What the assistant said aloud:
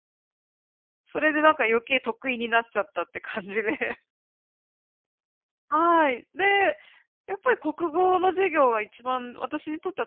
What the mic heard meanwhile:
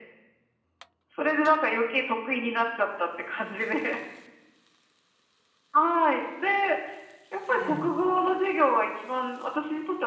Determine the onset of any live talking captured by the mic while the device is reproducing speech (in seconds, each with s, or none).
7.5 s